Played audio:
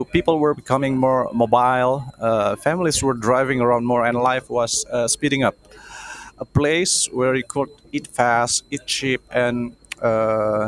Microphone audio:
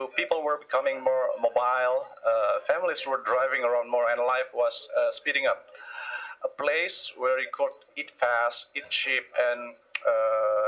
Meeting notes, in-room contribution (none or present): none